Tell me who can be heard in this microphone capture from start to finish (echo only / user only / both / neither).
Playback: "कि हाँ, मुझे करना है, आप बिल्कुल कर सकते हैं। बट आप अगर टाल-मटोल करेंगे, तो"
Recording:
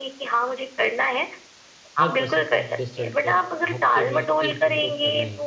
both